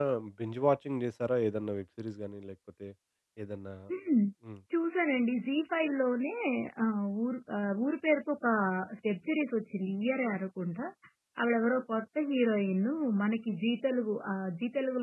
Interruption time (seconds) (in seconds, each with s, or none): none